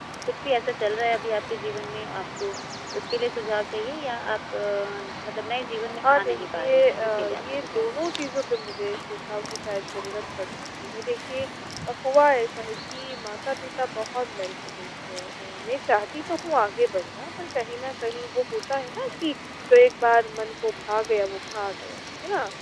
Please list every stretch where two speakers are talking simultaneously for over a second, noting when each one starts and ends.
6.0-8.2

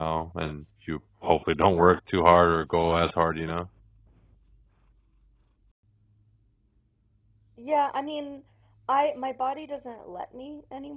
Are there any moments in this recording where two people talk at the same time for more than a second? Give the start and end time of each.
none

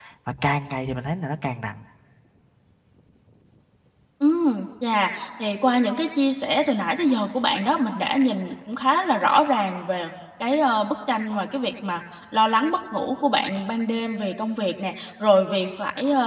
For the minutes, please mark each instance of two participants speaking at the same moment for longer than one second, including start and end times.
none

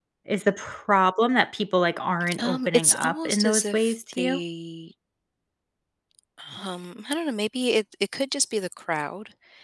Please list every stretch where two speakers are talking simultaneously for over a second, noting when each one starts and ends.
2.4-4.4

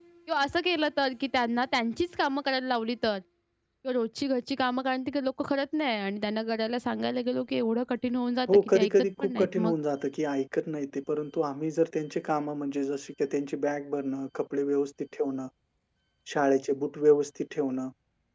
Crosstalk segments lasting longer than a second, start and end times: 8.5-9.7

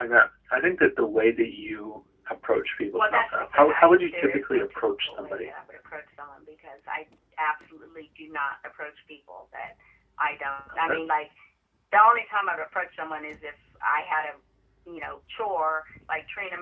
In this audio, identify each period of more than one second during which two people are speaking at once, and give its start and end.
3.0-5.5

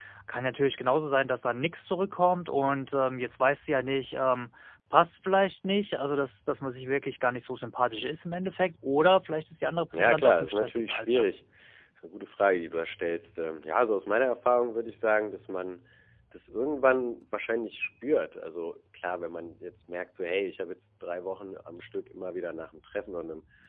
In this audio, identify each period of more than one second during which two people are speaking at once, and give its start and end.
9.9-11.2

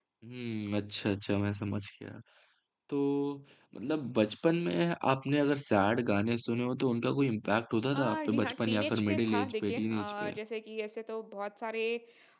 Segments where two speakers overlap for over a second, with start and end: 7.9-10.3

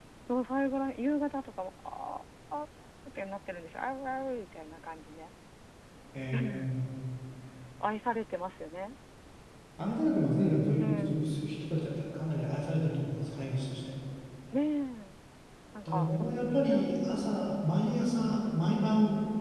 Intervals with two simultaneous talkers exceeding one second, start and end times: 15.8-17.3

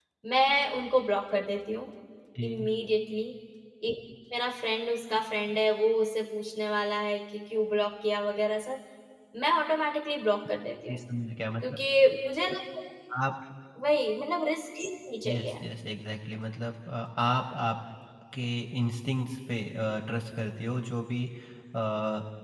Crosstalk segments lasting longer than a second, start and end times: none

